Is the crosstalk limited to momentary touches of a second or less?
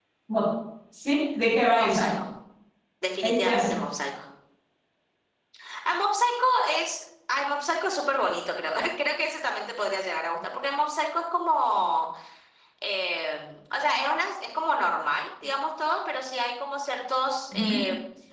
Yes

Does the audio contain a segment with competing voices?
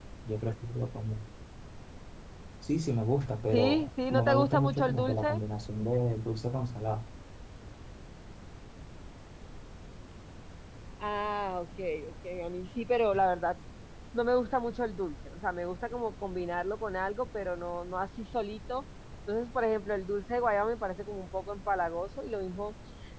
Yes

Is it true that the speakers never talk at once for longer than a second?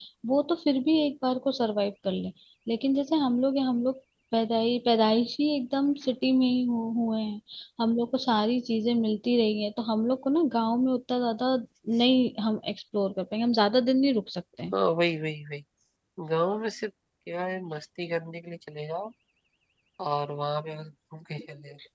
Yes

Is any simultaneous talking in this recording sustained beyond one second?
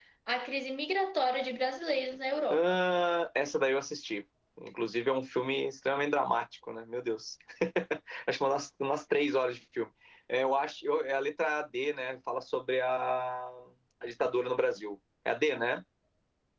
No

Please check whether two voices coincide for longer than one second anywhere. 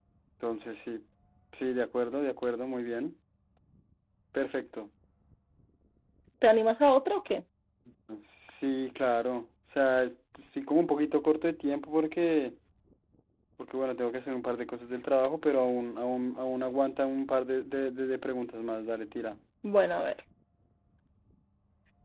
No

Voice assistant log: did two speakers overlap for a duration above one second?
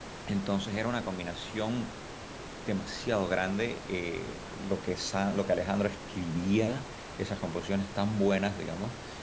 No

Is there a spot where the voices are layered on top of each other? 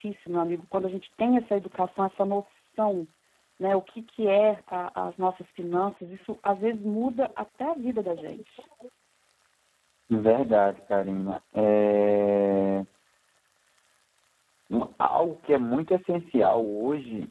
No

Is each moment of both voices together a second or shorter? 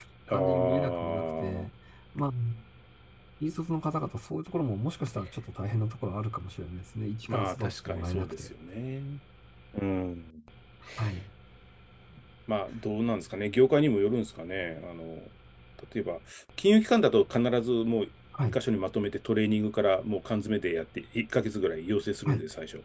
No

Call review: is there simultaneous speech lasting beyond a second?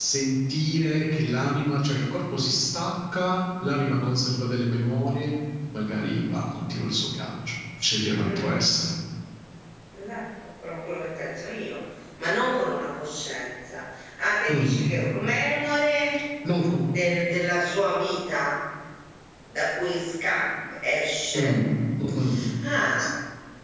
No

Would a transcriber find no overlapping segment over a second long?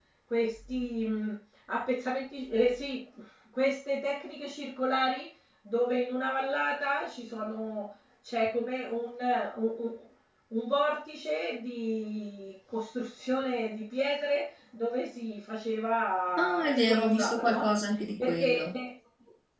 No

